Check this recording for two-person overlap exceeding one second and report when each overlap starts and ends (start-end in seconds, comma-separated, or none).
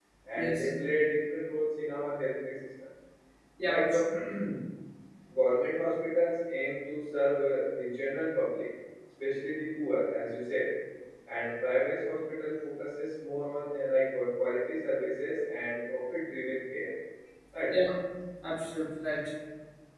none